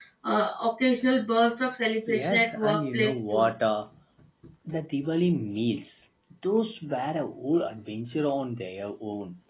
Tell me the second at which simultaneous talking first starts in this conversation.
2.1 s

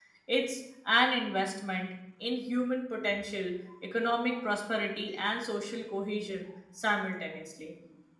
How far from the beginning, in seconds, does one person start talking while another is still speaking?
none

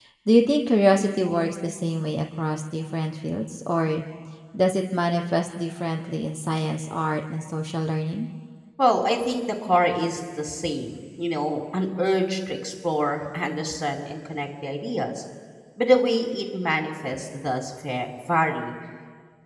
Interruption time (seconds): none

